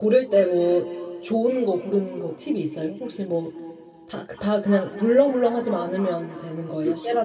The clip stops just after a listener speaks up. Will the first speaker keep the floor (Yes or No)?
No